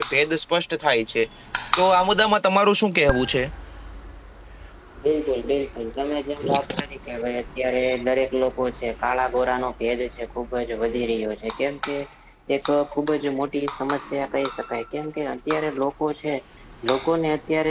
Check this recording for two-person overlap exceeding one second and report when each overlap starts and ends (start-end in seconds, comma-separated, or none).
none